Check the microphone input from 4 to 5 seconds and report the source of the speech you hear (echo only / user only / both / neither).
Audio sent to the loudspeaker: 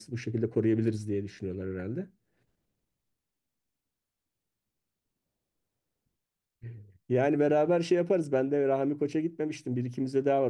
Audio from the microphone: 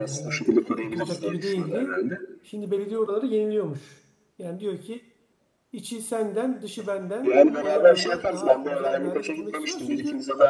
user only